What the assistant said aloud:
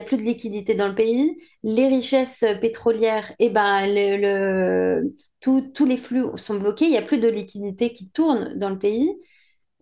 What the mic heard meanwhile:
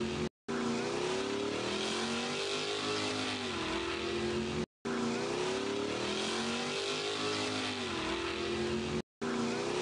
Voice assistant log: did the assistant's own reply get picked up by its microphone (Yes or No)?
No